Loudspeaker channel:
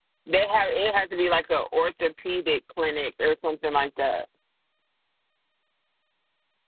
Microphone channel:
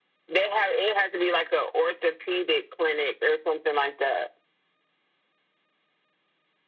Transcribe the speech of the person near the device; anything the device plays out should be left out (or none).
none